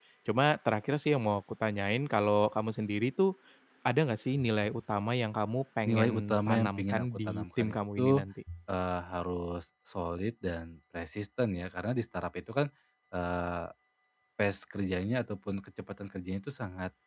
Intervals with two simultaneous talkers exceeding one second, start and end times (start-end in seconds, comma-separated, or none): 5.8-8.2